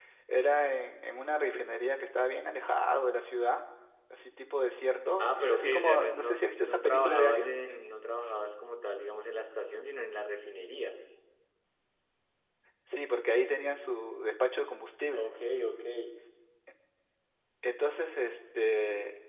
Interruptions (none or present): present